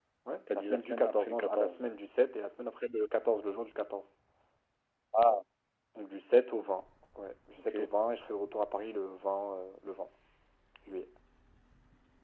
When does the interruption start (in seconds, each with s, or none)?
0.5 s